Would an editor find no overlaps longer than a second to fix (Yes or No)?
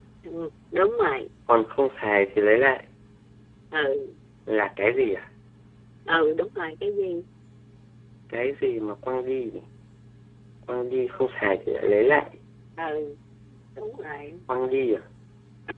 Yes